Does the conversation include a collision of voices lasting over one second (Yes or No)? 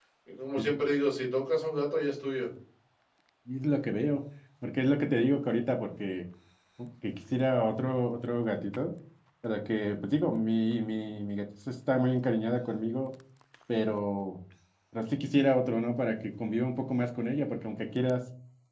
No